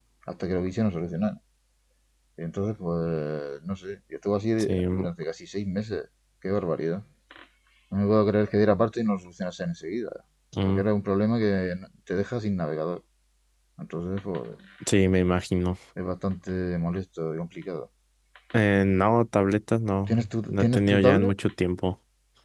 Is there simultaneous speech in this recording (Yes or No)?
Yes